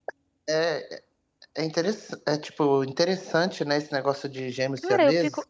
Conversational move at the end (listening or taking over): taking over